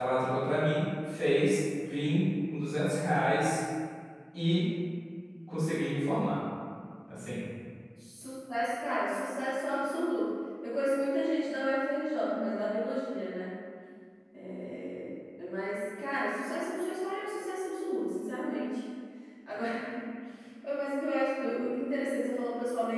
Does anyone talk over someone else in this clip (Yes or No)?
No